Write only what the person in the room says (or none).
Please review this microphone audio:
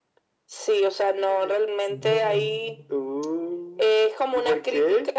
No.